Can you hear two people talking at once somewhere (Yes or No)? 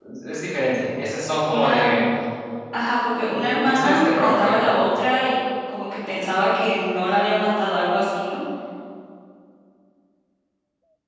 Yes